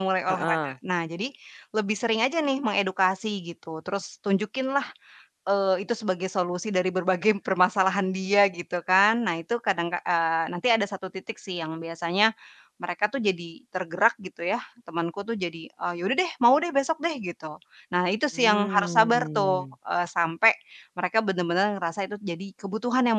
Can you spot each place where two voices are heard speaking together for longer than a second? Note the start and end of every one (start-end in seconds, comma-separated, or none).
18.3-19.6